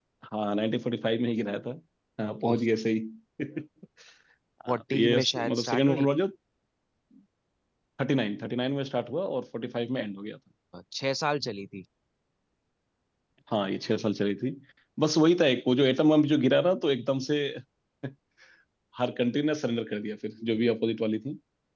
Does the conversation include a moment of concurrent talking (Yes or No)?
Yes